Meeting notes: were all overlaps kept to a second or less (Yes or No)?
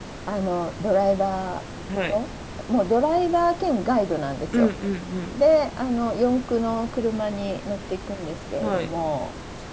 Yes